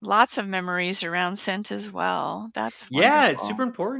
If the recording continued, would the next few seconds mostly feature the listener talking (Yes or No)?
Yes